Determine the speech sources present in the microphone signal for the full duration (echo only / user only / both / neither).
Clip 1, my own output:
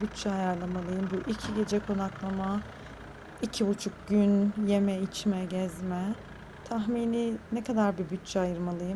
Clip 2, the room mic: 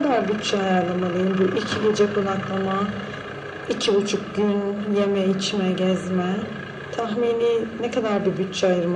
echo only